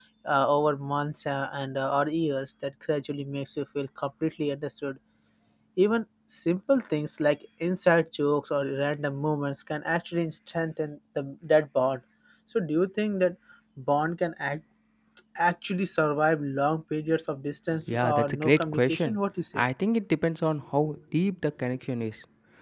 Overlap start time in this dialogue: 17.9 s

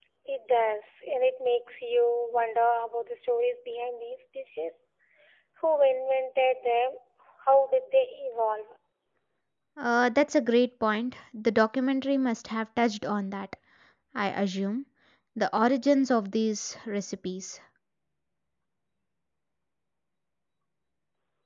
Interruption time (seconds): none

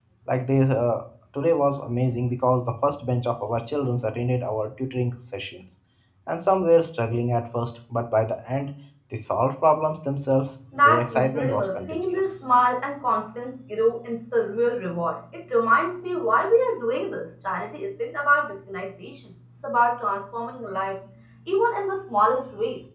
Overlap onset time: 10.7 s

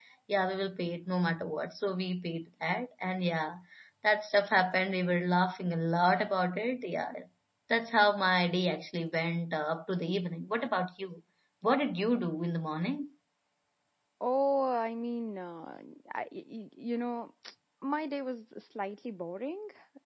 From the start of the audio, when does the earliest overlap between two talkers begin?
none

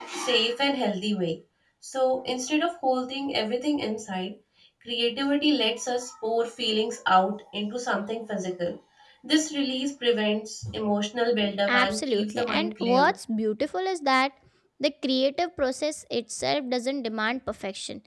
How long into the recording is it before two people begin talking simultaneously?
11.7 s

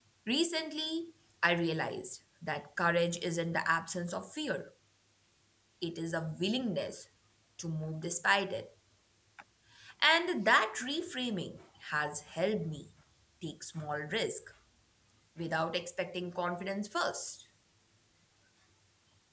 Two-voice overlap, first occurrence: none

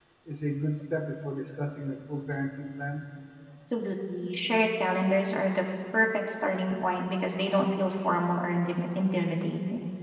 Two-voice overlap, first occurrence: none

